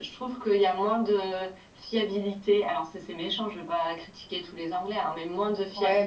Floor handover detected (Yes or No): No